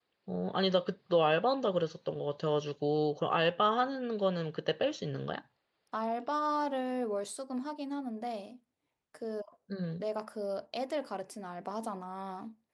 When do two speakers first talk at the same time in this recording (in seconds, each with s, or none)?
none